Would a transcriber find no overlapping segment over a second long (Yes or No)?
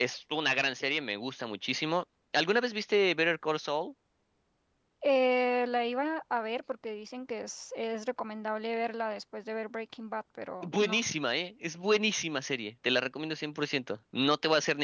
Yes